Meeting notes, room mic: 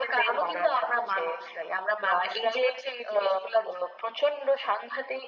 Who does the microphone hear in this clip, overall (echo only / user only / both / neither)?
echo only